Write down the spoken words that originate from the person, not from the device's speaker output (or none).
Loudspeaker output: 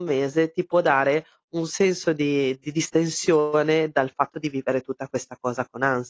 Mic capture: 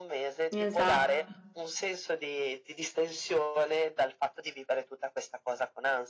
Esatto.